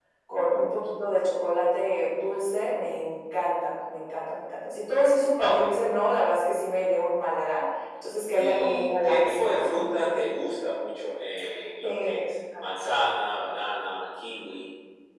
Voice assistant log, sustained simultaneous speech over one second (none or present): present